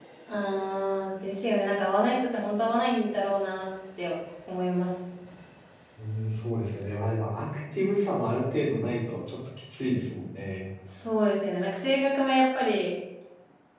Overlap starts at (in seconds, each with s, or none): none